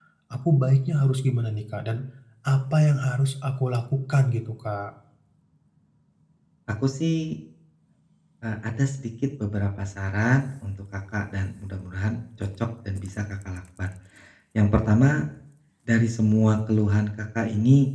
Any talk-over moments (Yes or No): No